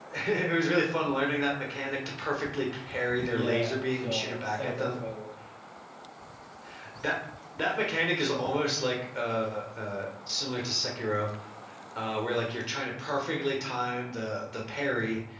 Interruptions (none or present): present